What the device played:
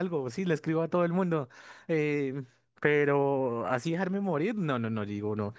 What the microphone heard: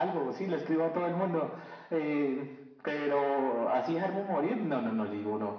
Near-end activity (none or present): none